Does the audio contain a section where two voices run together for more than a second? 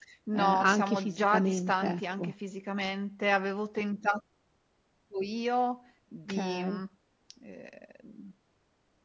Yes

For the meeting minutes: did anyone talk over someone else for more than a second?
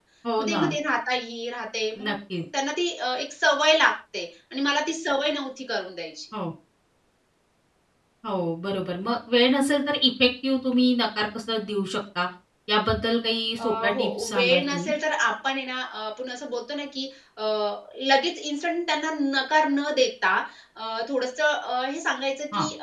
Yes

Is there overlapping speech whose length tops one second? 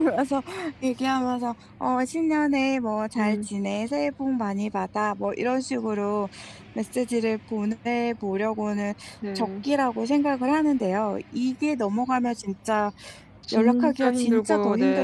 Yes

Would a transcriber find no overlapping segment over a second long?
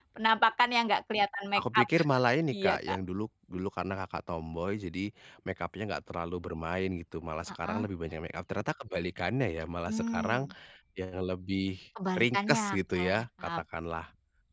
No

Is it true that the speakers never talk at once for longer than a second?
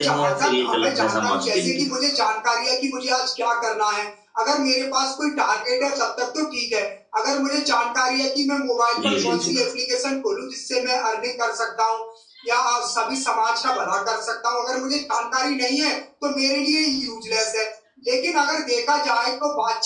No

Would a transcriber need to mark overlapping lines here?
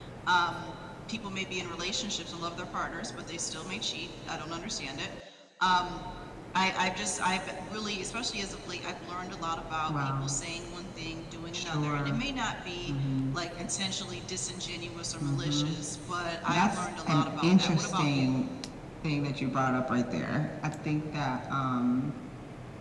Yes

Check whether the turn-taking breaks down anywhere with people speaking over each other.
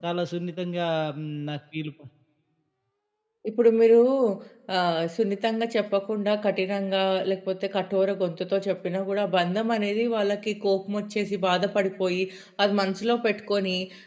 No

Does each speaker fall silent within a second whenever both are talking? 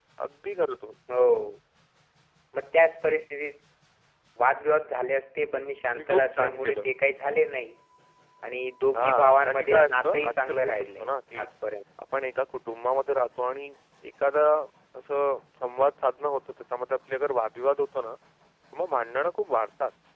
No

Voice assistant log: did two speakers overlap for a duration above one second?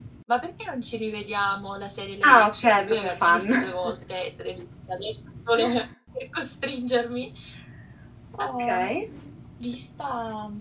Yes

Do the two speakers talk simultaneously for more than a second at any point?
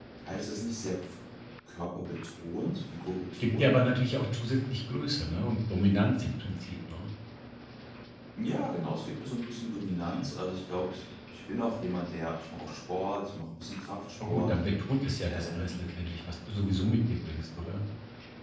No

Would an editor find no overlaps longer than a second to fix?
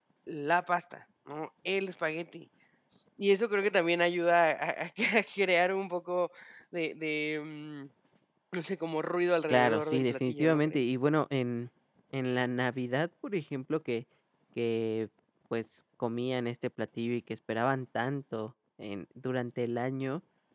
No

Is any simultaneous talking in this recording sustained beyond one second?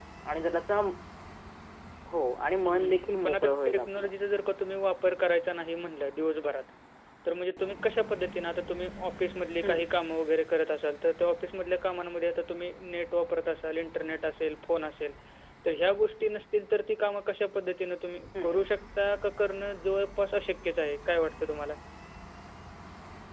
Yes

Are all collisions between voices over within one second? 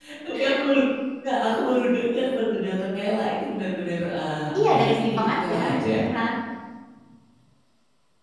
No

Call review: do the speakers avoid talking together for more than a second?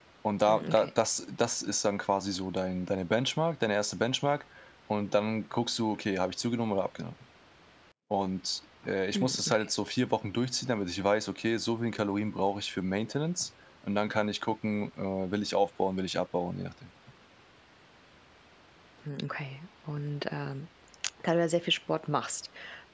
Yes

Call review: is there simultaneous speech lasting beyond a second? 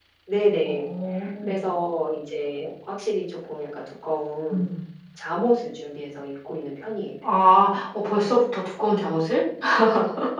No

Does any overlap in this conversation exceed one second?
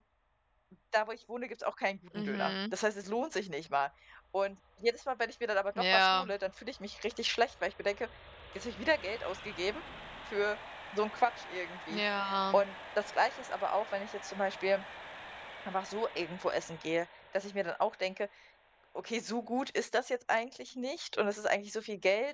No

